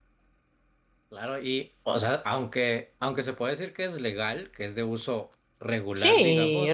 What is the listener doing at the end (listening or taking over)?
taking over